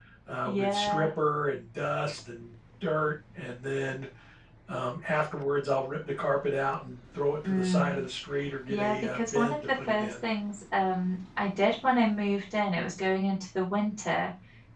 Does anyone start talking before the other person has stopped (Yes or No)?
Yes